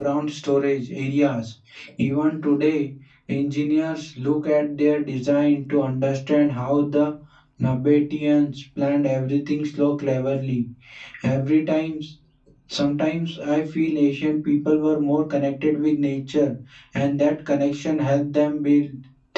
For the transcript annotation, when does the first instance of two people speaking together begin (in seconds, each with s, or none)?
none